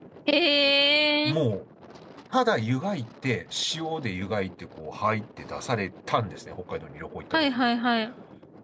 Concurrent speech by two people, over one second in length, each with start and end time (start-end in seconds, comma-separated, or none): none